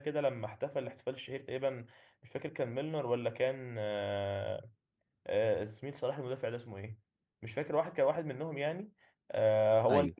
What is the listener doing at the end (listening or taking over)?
listening